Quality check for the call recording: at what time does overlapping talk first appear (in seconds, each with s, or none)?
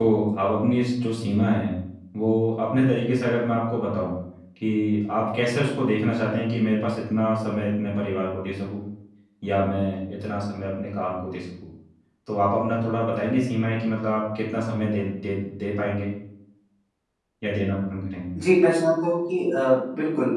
none